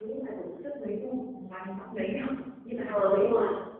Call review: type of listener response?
taking over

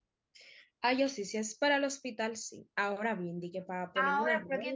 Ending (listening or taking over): taking over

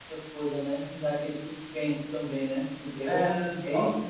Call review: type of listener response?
taking over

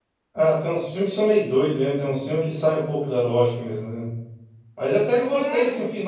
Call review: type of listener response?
listening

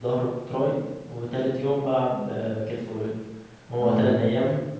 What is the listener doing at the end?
listening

